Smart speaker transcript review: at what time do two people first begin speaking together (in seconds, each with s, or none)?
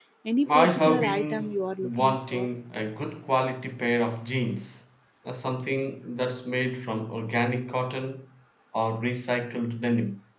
0.5 s